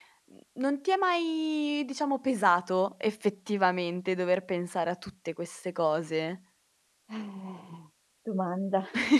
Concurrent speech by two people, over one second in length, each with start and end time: none

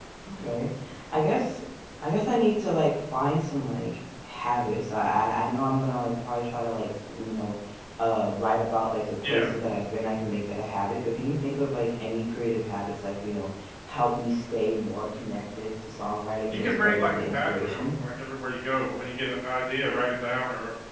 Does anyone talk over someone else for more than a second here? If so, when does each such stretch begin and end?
16.5-17.8

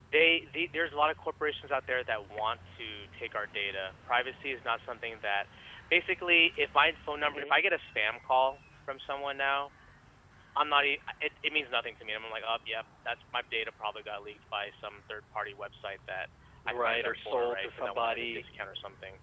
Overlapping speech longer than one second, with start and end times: 16.7-18.5

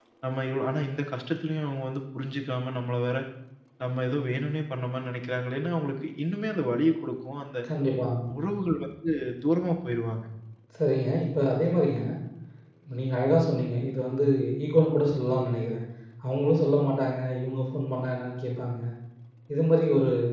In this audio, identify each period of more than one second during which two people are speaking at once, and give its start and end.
none

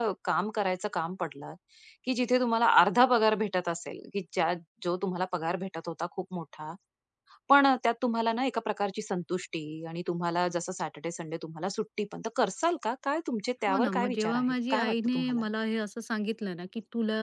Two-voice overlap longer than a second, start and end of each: 13.7-15.4

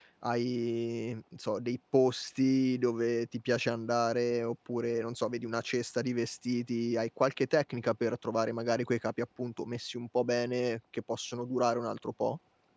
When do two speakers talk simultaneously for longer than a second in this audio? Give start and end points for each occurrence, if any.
none

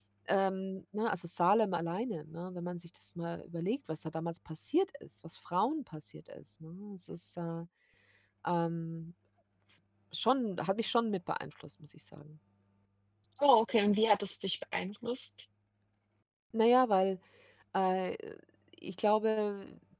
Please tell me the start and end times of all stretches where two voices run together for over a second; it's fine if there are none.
none

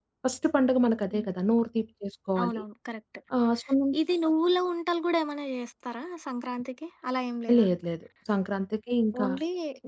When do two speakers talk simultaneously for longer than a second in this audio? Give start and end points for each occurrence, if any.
none

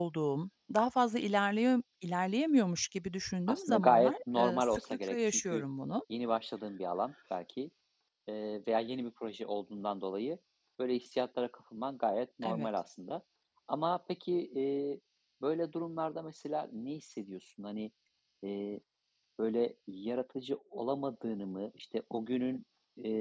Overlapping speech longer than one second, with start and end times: 3.5-5.6

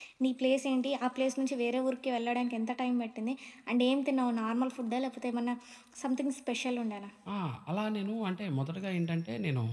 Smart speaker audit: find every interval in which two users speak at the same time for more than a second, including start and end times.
none

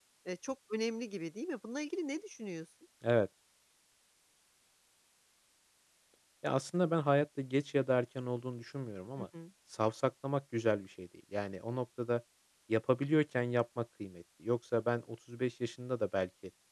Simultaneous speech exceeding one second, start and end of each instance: none

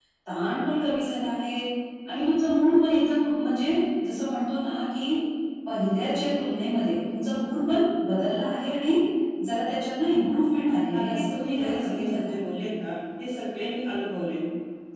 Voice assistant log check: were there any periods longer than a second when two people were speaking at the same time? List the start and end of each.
11.0-12.3

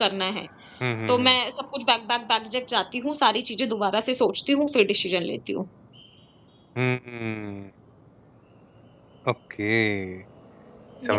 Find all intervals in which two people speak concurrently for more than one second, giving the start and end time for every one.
none

